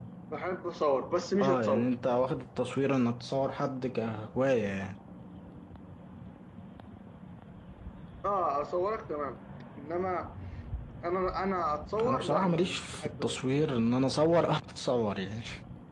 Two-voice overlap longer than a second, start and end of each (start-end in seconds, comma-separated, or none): 12.0-13.7